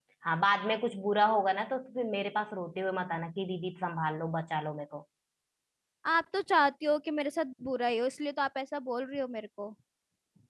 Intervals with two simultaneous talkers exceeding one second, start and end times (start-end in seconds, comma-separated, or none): none